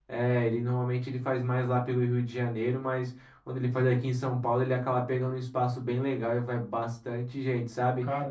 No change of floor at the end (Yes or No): Yes